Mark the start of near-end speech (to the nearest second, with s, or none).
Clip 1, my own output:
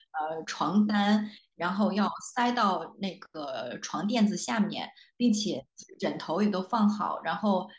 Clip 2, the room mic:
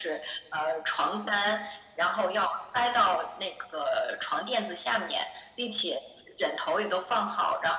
none